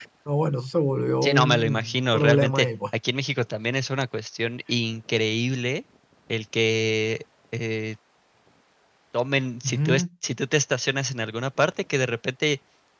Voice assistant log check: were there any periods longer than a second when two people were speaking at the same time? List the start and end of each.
1.2-2.7

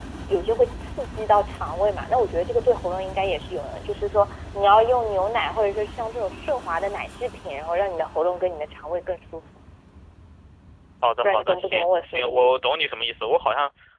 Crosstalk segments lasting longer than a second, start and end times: 11.2-12.7

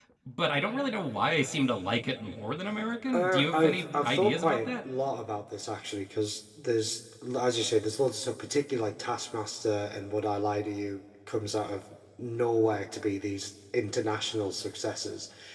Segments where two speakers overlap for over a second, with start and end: 3.1-4.7

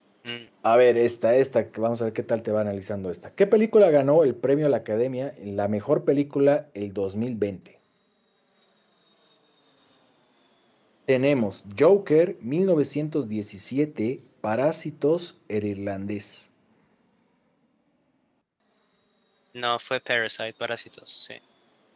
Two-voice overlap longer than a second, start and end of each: none

